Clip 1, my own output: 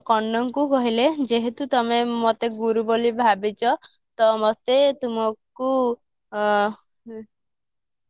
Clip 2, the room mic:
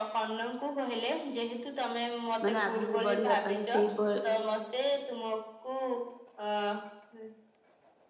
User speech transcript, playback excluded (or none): ମାନେ ଆଗକୁ ବଢିବା ପାଇଁ ସେଇପ